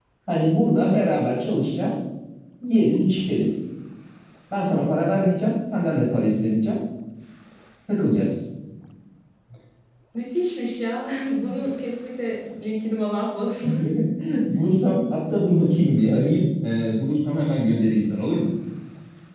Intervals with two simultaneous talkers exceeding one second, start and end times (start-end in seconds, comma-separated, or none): none